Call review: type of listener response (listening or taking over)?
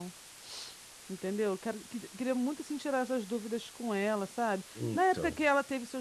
listening